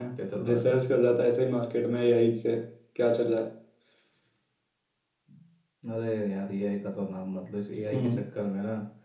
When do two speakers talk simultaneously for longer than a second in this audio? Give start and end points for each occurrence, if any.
none

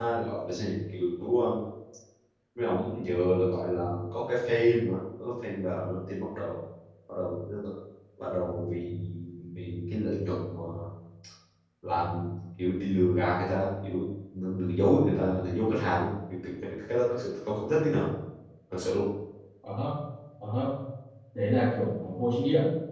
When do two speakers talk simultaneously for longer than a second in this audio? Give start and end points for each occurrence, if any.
none

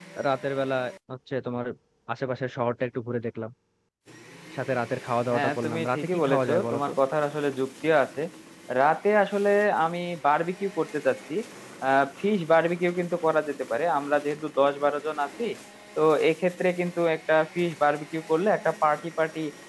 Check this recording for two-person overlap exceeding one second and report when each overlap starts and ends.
5.3-6.9

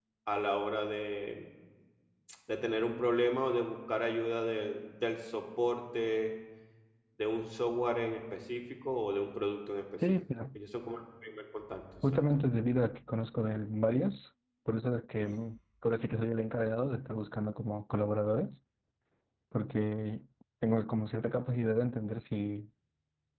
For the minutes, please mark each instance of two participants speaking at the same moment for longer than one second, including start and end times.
none

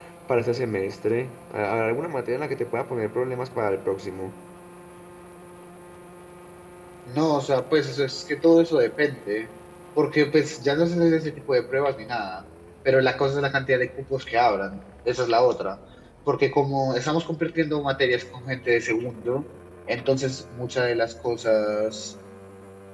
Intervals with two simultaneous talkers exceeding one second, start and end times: none

